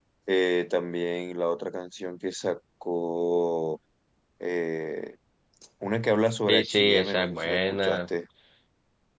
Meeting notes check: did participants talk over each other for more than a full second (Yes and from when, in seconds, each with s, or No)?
Yes, from 6.5 s